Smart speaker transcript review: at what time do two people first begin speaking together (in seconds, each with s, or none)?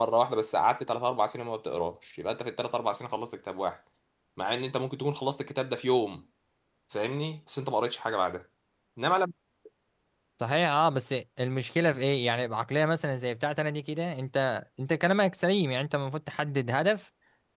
none